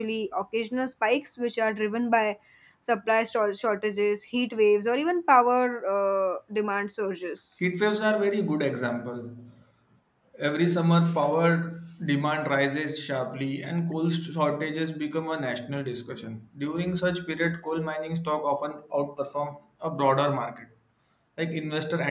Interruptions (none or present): none